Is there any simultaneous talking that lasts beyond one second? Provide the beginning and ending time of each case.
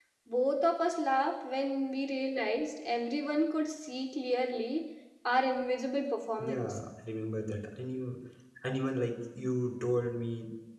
none

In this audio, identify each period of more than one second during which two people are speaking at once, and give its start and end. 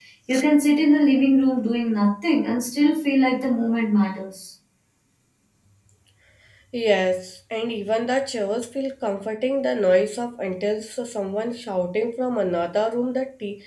none

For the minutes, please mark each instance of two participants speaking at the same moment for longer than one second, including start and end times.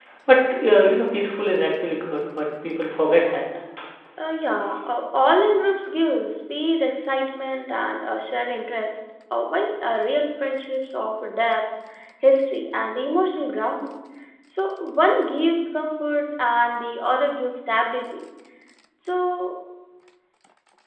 none

